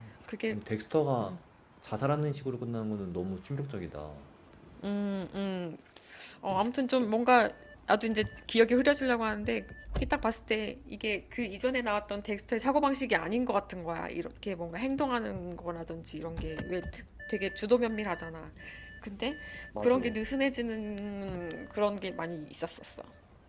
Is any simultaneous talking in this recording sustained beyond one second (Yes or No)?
No